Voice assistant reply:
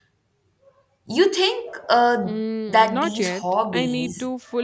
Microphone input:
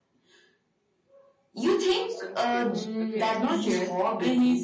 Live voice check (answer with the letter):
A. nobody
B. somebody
B